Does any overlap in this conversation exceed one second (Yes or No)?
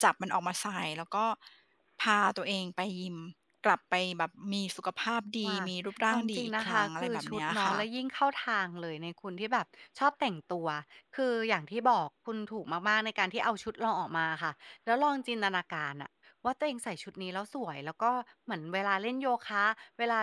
Yes